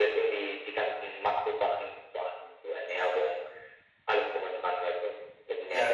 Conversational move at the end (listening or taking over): taking over